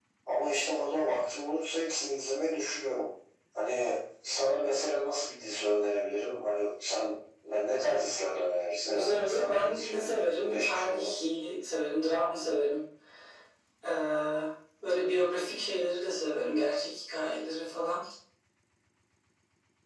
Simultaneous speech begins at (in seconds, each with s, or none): 8.9 s